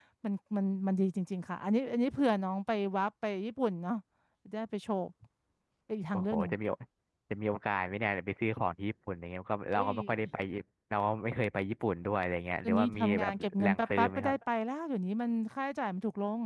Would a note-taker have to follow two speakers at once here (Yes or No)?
Yes